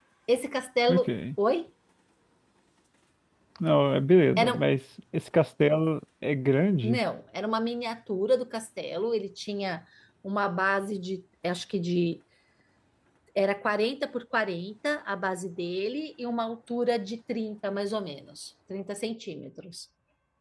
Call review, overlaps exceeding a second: none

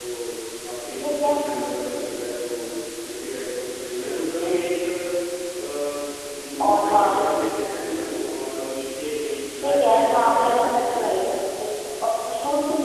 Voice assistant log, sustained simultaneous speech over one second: present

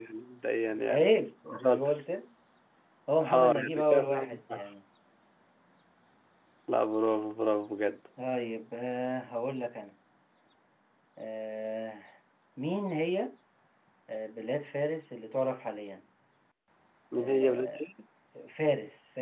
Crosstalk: present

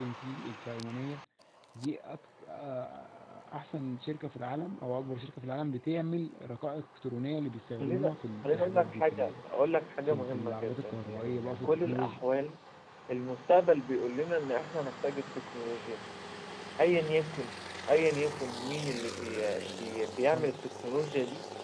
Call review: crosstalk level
present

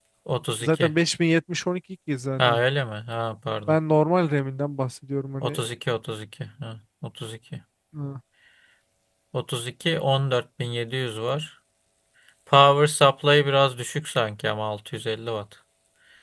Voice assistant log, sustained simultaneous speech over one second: none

